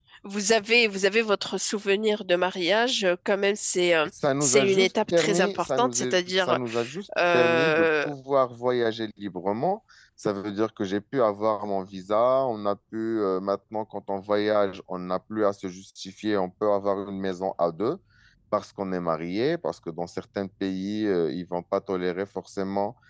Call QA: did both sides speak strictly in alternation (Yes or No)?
No